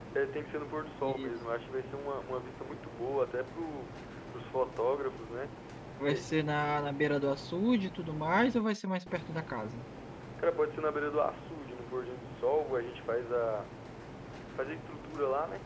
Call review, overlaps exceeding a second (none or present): none